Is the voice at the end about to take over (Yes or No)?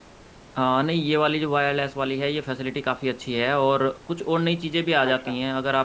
No